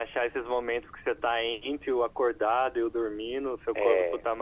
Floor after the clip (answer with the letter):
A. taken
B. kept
B